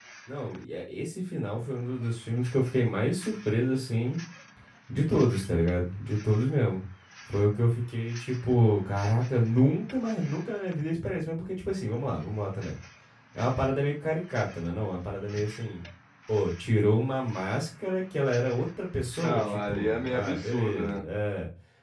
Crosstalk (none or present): present